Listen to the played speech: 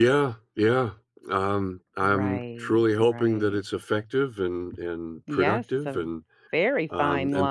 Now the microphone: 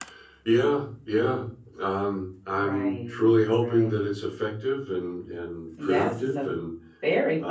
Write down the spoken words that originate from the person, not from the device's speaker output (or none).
none